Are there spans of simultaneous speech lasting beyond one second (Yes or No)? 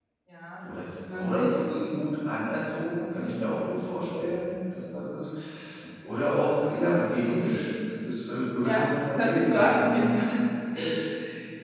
Yes